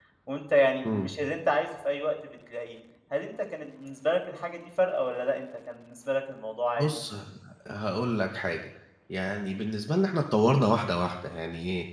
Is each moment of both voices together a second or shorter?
Yes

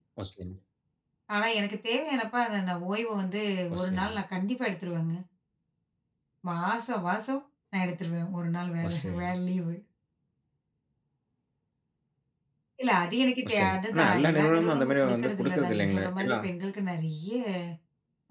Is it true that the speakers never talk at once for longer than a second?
No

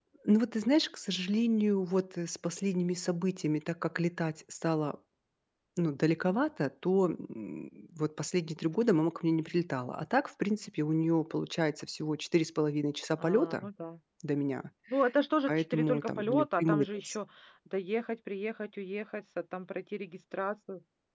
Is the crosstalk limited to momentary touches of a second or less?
No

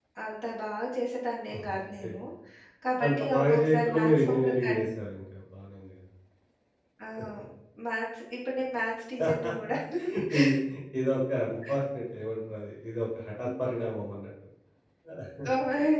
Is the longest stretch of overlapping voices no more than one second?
No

